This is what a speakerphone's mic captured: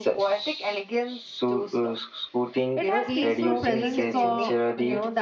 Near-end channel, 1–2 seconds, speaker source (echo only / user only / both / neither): echo only